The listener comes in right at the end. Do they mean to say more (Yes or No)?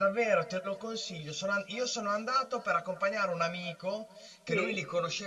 No